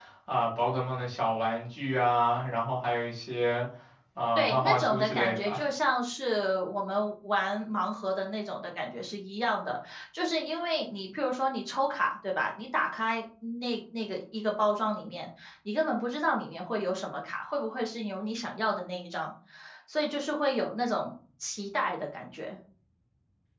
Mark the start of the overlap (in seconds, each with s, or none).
4.3 s